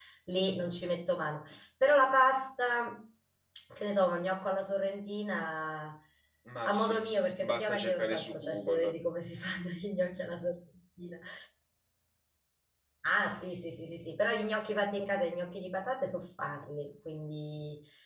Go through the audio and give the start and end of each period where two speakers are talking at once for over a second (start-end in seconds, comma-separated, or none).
6.7-8.9